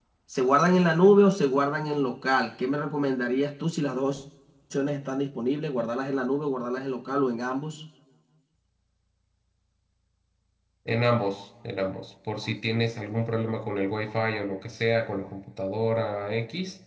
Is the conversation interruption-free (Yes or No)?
Yes